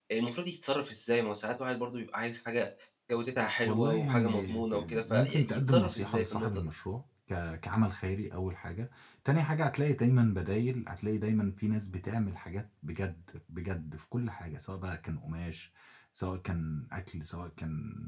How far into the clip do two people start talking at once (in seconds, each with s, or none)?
3.6 s